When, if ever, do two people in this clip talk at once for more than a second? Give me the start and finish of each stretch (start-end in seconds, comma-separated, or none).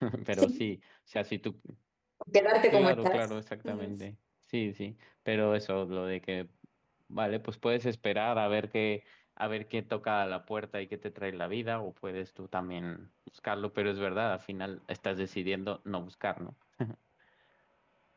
none